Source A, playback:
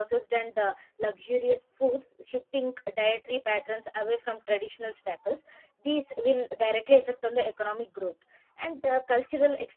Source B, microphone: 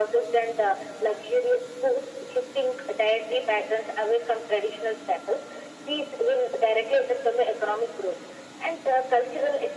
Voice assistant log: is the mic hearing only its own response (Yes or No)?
Yes